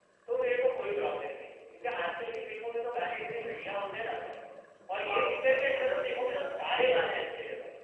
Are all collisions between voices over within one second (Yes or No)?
No